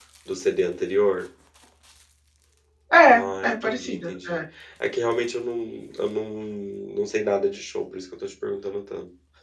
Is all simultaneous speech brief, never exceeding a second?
No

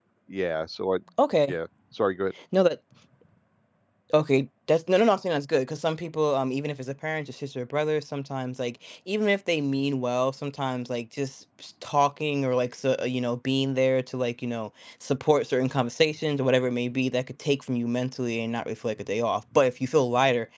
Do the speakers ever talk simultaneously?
No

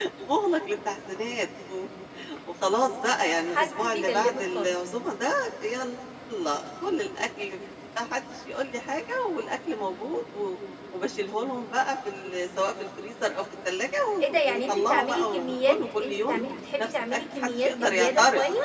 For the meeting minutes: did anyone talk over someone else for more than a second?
Yes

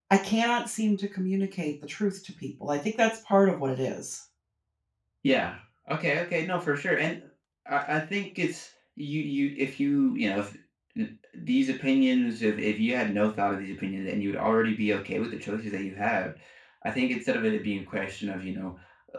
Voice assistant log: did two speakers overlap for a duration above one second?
No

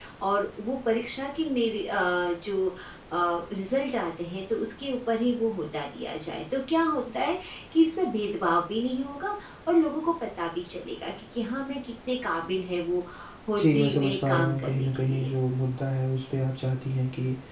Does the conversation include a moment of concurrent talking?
Yes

